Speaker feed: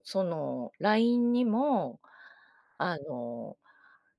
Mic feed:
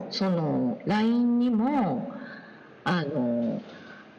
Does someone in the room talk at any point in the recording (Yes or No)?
No